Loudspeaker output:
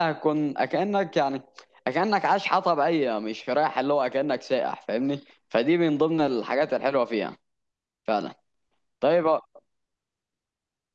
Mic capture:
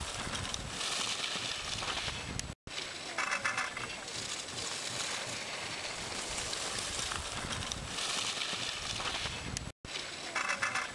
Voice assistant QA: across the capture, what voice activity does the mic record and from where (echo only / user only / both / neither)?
neither